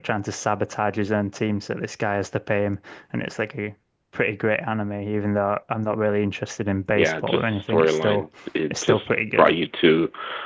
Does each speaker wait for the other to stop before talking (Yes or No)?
No